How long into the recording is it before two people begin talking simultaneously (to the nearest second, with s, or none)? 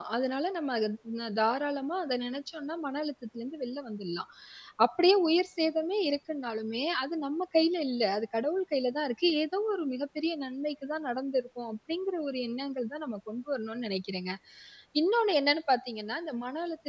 none